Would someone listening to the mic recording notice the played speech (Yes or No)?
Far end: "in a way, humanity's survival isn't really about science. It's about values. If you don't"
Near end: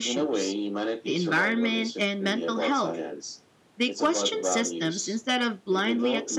Yes